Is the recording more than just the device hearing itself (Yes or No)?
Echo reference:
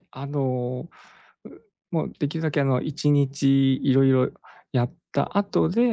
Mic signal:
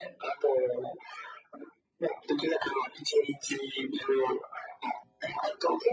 No